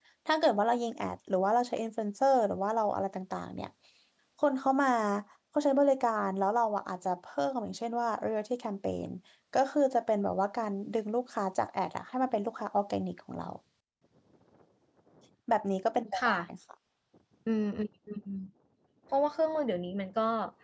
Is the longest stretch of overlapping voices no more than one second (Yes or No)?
Yes